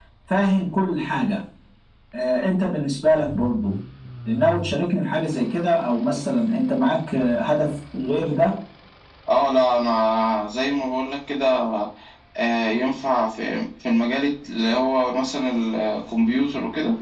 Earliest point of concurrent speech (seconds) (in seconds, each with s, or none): none